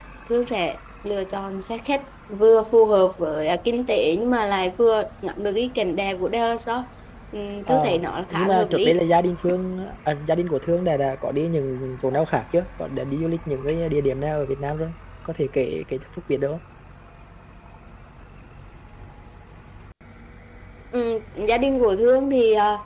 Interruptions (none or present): present